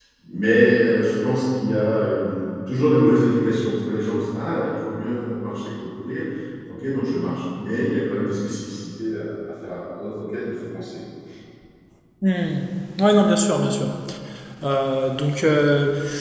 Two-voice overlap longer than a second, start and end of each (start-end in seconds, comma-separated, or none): none